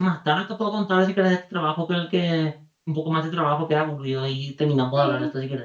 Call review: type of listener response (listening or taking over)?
taking over